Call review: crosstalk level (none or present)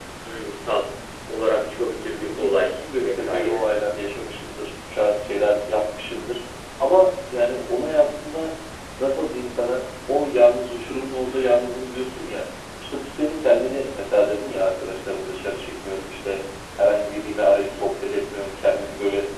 present